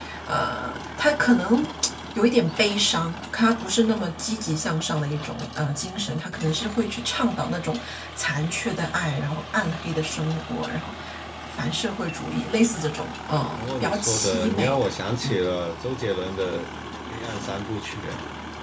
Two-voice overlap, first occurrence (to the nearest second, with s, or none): 14 s